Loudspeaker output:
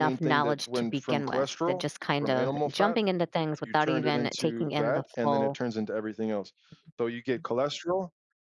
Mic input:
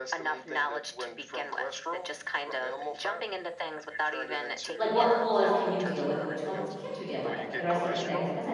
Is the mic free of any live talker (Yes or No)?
No